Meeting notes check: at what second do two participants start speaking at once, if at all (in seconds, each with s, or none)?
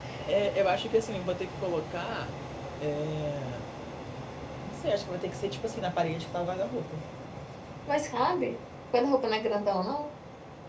none